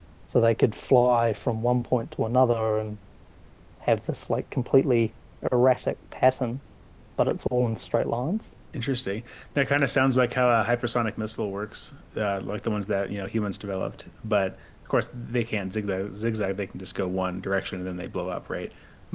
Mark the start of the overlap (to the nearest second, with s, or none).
none